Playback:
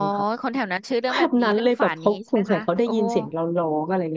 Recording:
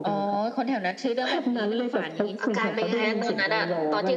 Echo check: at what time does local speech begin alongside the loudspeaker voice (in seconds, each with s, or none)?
2.4 s